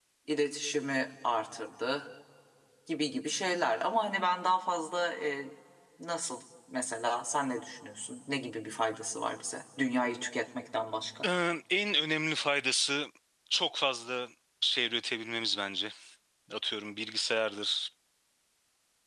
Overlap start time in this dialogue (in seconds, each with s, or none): none